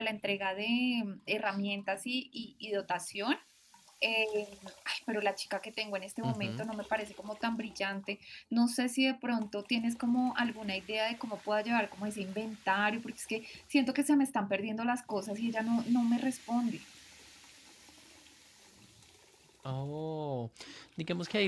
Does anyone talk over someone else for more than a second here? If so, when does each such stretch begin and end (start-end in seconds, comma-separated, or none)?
none